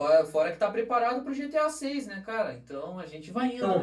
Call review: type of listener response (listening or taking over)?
taking over